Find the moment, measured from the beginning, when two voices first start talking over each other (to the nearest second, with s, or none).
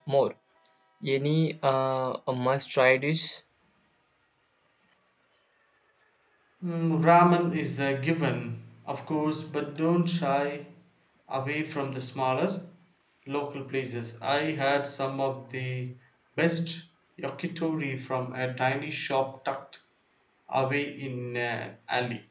none